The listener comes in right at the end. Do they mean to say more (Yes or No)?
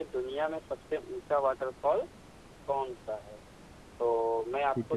No